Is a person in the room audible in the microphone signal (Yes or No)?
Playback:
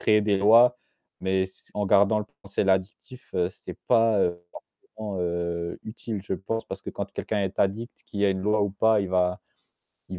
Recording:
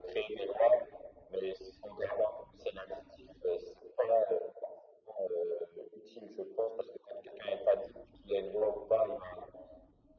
No